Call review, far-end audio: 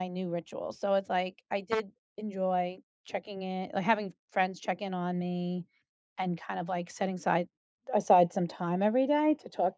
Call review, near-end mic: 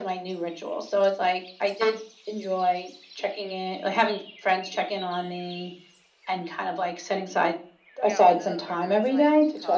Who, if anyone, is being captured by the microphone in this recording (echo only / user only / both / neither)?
both